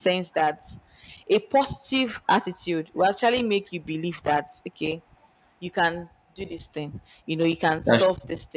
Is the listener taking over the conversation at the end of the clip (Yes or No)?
No